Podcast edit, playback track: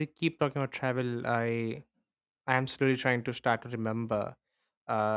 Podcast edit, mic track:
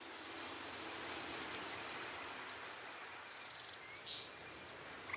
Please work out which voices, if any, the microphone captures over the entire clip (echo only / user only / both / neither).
neither